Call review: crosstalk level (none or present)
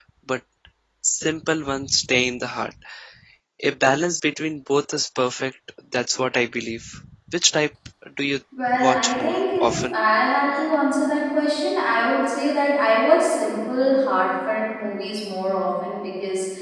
present